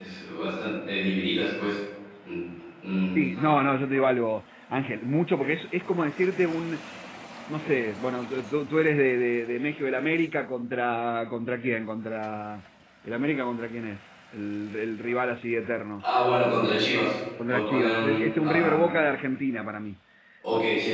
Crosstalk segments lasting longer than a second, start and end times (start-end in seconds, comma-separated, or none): 17.5-18.8